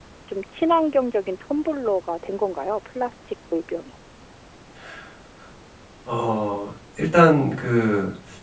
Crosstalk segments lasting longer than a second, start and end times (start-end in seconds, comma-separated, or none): none